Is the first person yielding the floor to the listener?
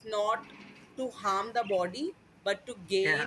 No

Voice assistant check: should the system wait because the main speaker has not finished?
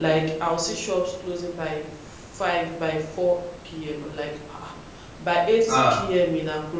Yes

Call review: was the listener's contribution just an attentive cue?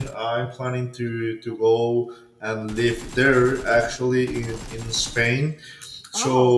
Yes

